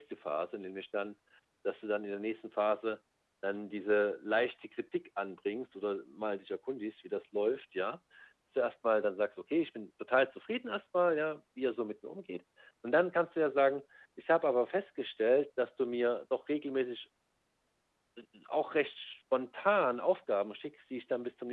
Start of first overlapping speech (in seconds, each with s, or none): none